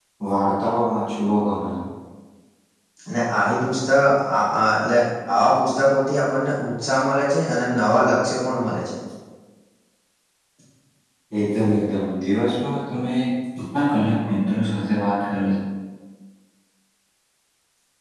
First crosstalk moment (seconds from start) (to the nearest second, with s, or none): none